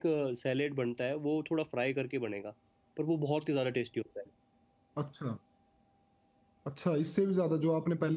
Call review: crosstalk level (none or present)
none